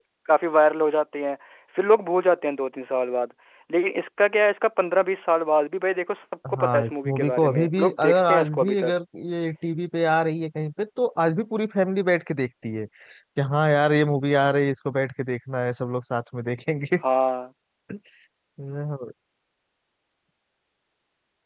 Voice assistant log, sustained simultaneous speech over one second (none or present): present